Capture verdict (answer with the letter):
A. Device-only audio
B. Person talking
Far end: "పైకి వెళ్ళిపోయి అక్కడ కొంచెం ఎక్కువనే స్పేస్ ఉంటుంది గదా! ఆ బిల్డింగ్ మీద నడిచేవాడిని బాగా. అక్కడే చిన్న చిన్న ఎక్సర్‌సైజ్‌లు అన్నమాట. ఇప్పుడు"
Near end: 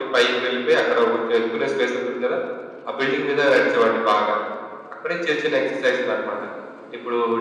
A